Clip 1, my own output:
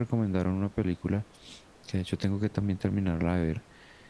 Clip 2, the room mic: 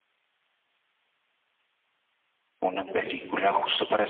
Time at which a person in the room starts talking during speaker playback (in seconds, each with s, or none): 2.6 s